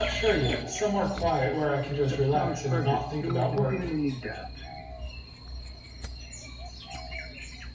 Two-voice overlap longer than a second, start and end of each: 2.1-3.7

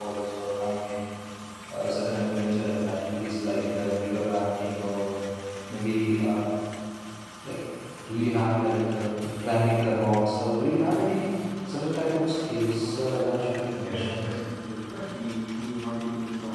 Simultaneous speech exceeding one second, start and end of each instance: 12.1-14.3

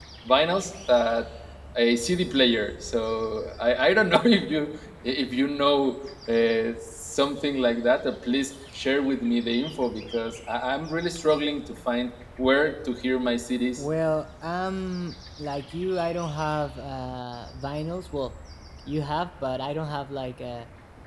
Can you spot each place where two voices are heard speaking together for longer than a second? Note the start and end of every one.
none

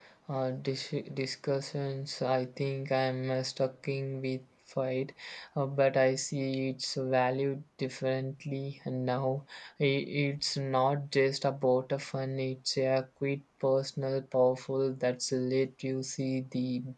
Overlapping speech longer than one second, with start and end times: none

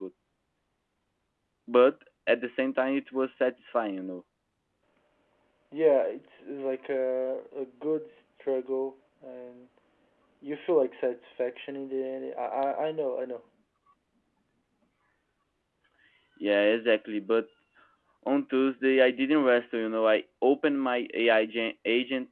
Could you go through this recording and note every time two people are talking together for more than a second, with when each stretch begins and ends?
none

